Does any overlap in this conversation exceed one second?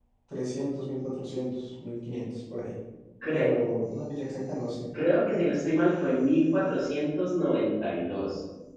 No

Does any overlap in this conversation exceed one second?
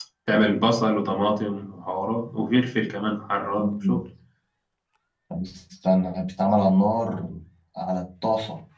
No

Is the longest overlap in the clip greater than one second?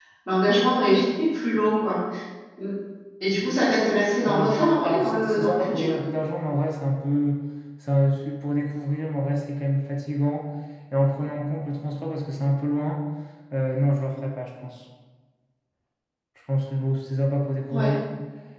Yes, from 4.3 s

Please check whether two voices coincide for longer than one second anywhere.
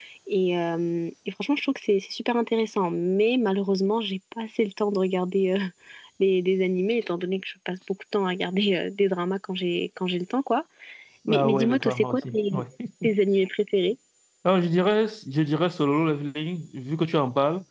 Yes, from 11.3 s

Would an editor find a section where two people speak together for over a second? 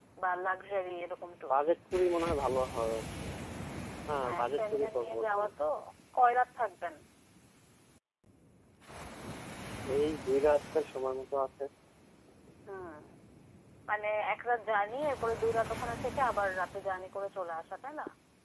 Yes, from 4.2 s

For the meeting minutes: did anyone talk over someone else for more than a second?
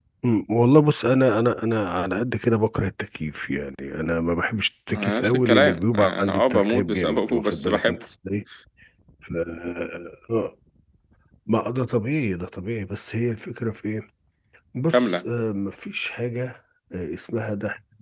Yes, from 5.0 s

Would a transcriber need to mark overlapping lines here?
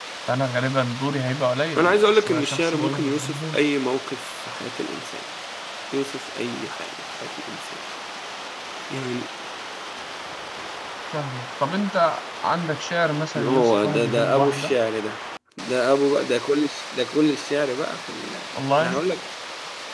Yes, from 1.8 s

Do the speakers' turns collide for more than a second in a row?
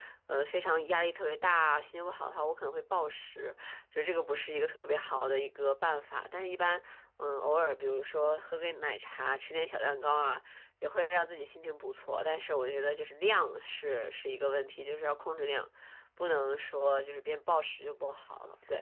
No

